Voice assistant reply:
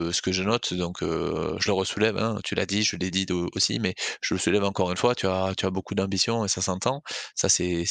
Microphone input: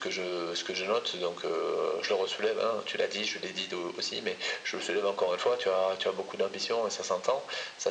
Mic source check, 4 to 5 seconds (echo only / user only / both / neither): echo only